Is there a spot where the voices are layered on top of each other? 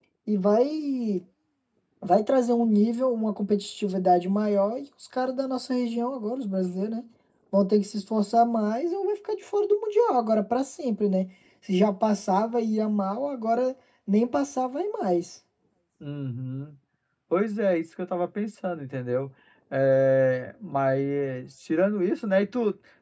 No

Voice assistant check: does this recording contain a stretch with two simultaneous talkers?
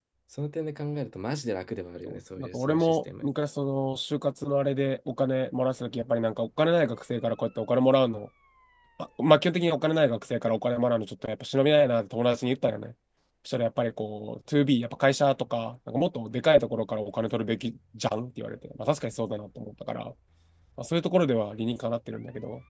Yes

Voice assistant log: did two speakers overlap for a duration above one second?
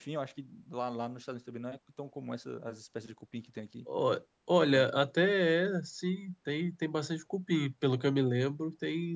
No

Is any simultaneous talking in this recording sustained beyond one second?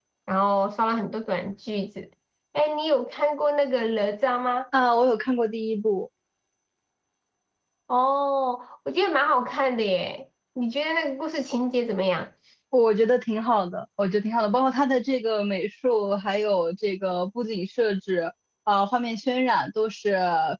No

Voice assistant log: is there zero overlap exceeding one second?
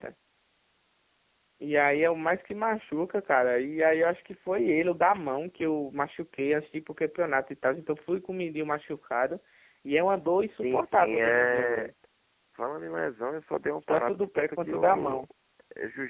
No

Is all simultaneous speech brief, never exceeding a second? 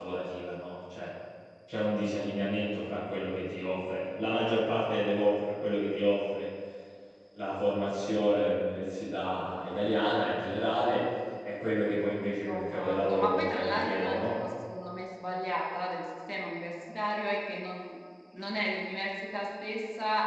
No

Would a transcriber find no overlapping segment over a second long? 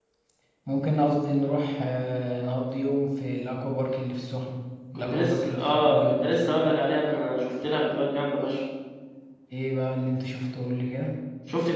No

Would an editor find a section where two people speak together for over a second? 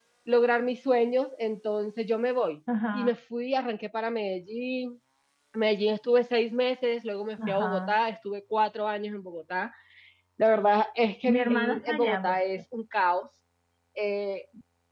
Yes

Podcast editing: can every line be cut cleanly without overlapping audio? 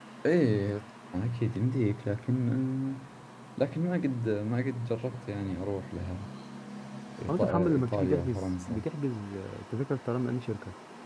No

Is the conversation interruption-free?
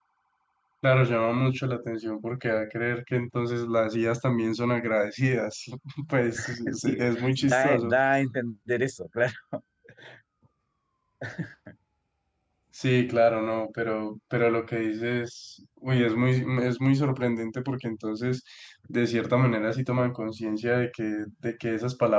No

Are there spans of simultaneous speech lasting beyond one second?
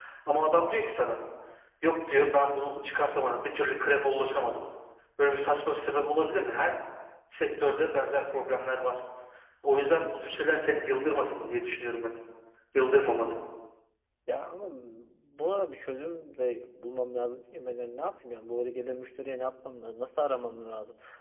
No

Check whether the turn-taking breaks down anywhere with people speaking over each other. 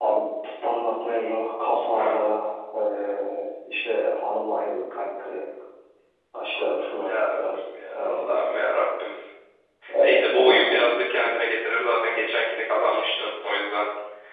Yes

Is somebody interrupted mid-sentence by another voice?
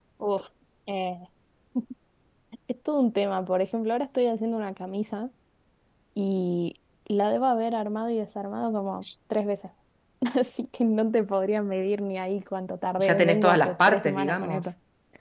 Yes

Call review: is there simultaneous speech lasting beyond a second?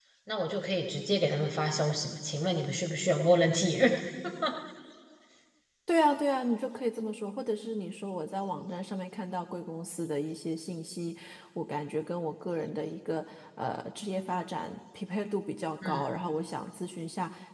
No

